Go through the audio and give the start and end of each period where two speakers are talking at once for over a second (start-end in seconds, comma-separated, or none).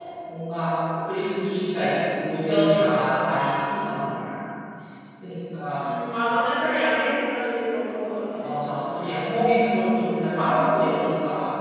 none